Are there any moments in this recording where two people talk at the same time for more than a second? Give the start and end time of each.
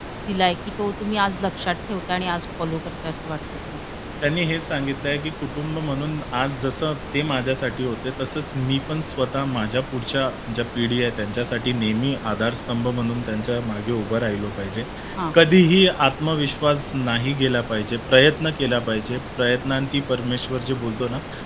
none

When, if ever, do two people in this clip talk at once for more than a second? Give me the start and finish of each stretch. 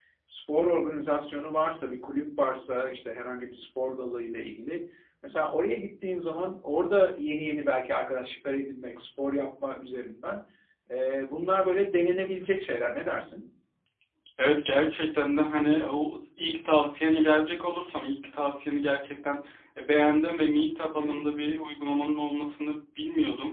none

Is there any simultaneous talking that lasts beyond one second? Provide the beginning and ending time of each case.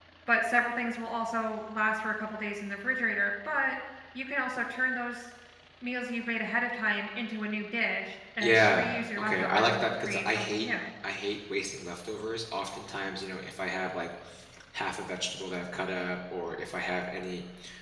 8.4-10.7

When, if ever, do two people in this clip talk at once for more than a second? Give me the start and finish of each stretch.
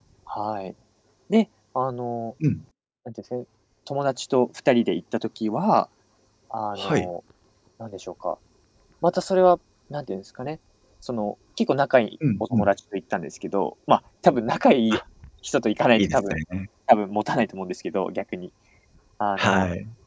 none

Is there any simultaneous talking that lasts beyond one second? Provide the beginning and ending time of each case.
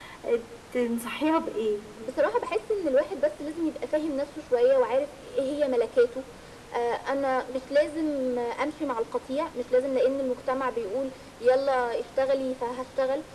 none

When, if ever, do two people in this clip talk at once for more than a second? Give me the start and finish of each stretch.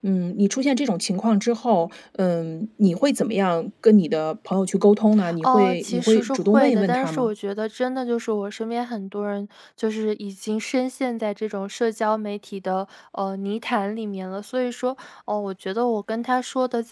5.4-7.3

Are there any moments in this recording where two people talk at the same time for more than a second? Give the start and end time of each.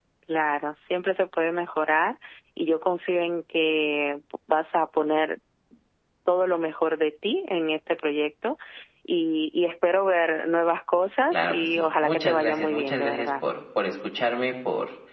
11.3-13.3

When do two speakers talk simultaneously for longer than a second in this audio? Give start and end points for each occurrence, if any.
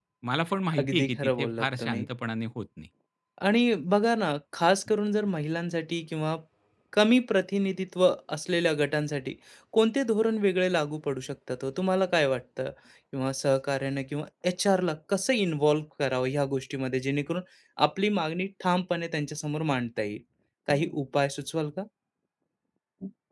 0.8-2.1

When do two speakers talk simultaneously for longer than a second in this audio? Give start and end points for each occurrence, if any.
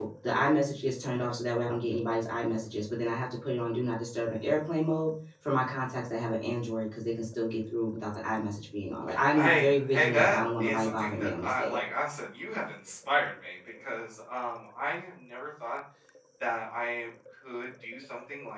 9.3-11.8

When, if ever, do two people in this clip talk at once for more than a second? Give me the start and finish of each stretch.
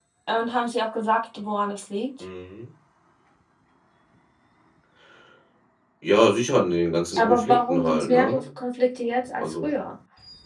7.2-8.4

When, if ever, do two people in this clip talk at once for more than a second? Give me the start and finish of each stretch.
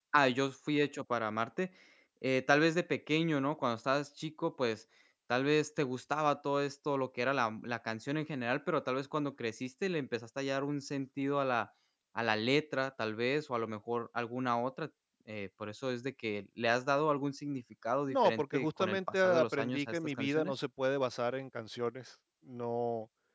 18.1-20.5

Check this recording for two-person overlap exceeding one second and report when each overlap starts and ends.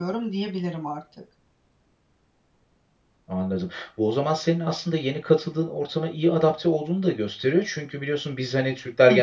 none

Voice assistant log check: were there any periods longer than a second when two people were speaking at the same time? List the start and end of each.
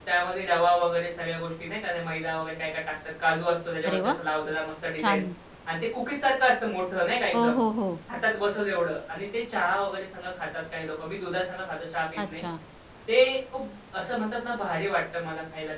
none

